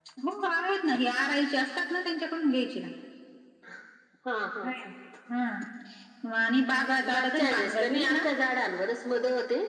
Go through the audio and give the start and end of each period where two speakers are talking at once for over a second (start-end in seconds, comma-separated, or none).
6.7-8.2